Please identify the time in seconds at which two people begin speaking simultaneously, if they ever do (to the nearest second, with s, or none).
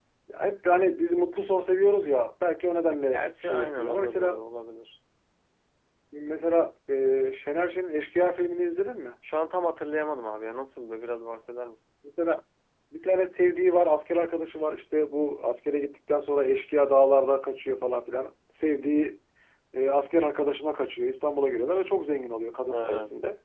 3 s